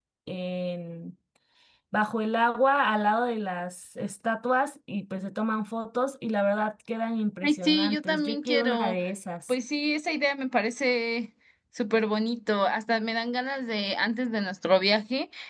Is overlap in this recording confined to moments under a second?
No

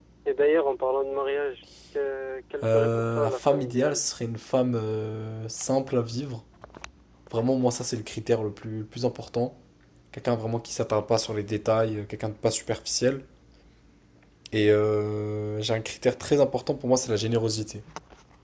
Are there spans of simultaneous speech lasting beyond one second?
Yes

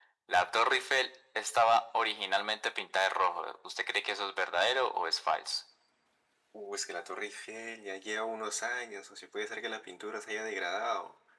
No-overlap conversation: Yes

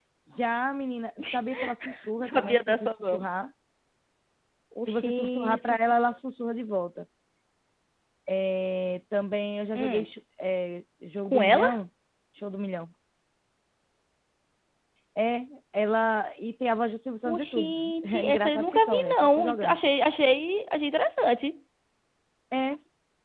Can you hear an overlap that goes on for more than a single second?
Yes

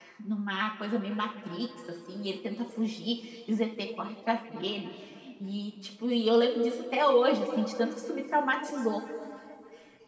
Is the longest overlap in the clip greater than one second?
No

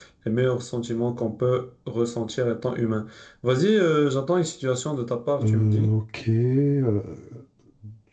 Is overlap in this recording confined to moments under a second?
Yes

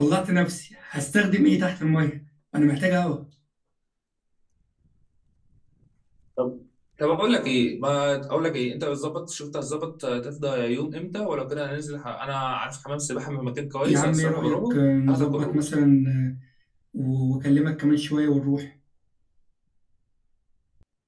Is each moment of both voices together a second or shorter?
No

